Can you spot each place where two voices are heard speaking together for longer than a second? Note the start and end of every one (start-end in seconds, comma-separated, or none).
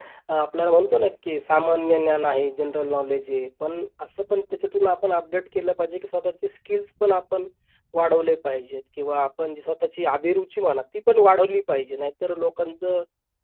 none